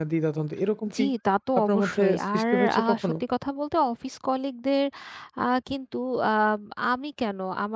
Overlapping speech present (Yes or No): Yes